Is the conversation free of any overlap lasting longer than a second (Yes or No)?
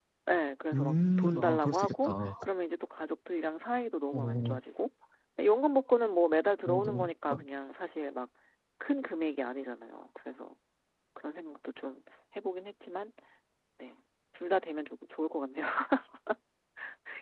No